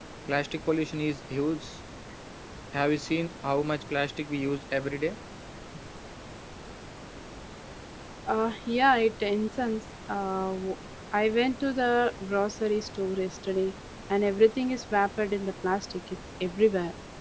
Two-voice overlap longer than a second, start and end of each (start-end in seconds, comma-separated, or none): none